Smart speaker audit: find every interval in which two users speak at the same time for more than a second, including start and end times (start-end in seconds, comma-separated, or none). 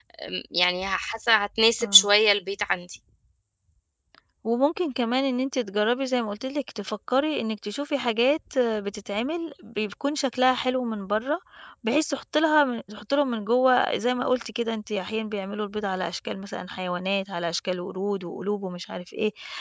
none